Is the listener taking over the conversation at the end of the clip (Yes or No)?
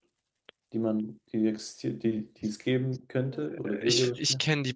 Yes